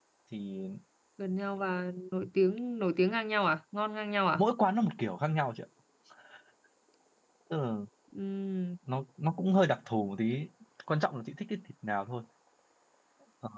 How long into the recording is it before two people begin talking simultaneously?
none

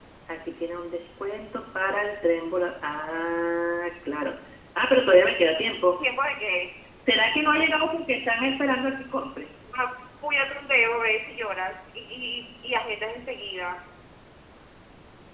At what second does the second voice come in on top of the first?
none

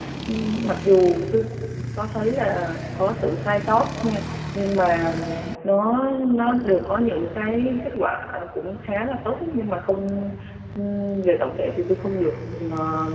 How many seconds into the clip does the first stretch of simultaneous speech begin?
none

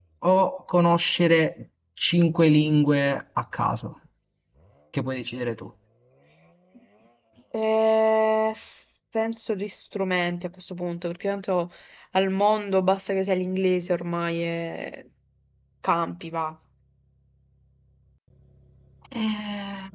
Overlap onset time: none

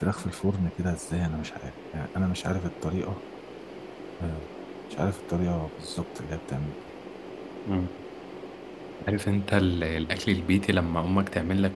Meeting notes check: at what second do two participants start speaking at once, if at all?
none

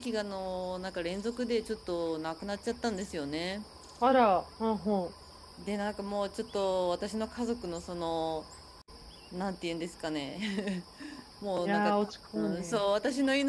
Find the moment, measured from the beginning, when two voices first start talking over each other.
11.6 s

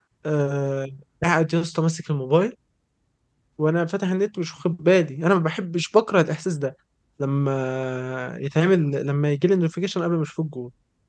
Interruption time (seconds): none

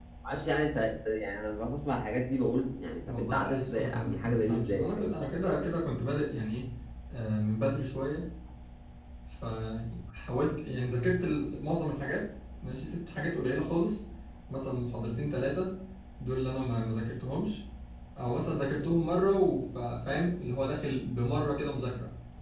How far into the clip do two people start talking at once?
3.1 s

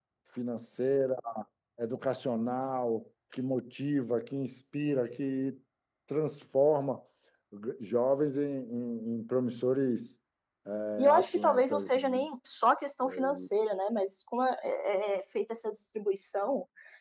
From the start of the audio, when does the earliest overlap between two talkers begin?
11.0 s

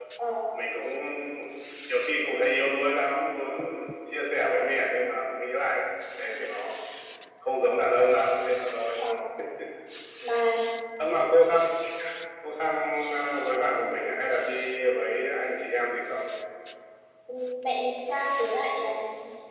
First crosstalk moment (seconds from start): none

